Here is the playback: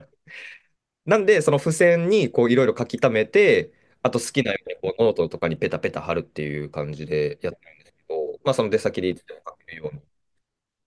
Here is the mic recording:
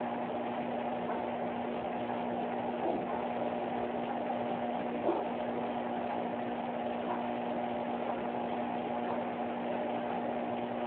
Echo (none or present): none